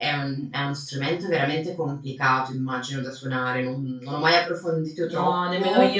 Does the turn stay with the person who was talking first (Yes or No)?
No